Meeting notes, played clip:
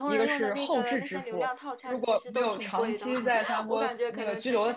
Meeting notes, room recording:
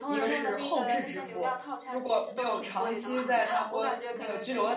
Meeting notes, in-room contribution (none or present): none